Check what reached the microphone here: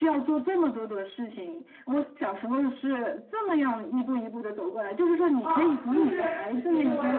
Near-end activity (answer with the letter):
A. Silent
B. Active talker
B